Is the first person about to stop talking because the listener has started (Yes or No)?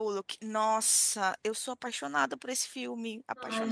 Yes